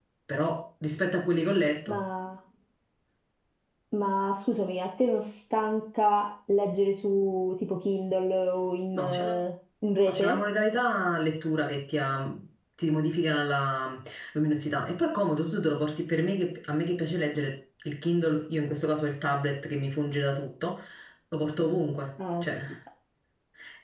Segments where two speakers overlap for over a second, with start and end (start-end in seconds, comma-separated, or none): none